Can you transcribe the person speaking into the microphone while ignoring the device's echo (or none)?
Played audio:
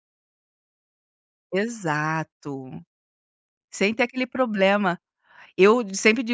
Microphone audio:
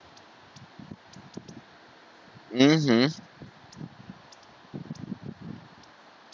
Uhum.